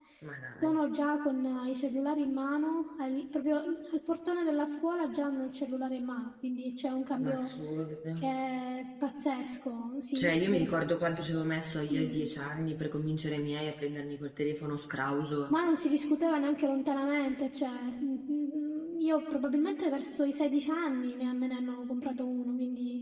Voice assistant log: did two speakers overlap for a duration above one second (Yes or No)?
No